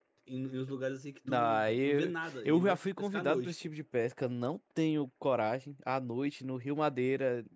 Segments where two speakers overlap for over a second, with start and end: 1.3-3.5

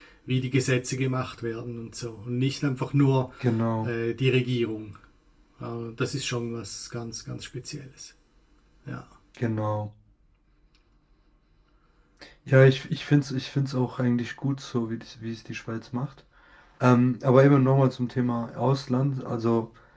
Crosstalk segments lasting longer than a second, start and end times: none

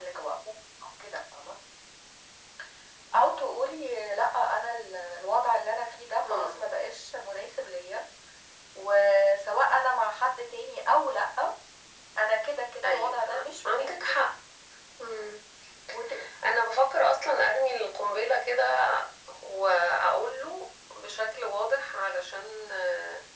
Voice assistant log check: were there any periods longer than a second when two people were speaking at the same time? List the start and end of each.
12.8-14.2

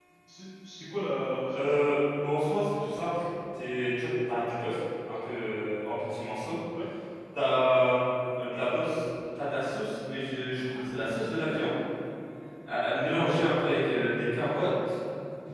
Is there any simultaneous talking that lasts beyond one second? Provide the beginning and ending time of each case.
none

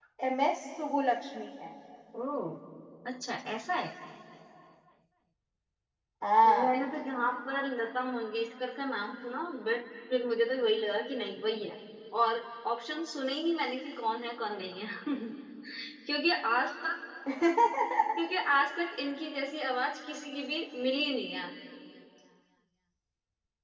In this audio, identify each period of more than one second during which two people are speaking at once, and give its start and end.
none

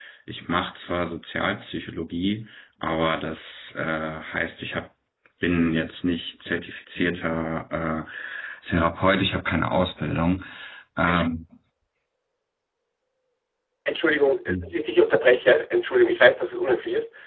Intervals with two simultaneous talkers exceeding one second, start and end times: none

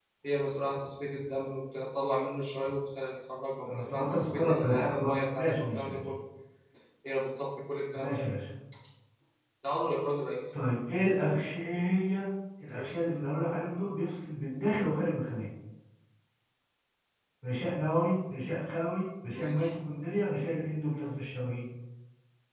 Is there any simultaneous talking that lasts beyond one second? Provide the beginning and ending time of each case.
3.6-6.0

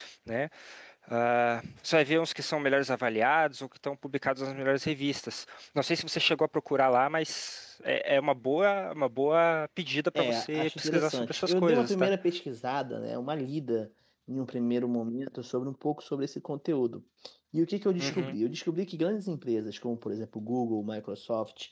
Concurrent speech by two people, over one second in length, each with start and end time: 10.2-12.1

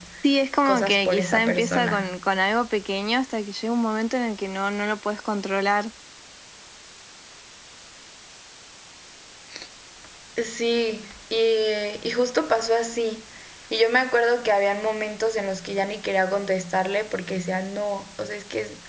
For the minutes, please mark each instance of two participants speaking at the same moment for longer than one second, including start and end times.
0.6-2.1

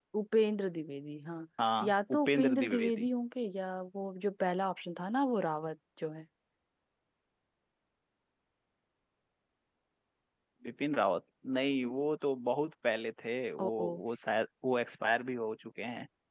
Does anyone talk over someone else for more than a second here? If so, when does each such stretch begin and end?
1.8-3.1

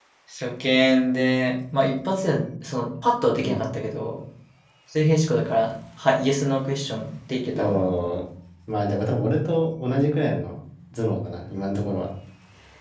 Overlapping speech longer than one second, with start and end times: none

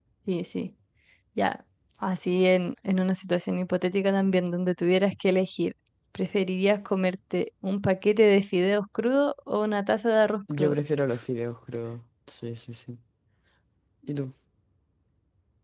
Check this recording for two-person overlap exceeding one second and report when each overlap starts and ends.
none

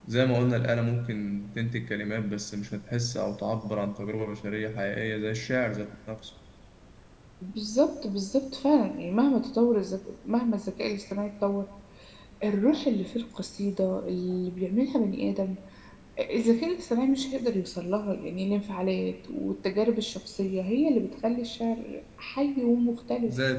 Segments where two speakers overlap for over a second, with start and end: none

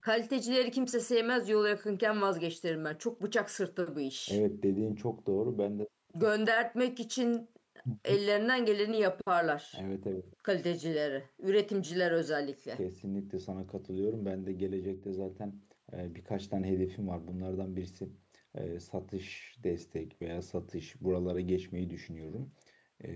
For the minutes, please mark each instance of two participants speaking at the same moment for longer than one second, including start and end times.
none

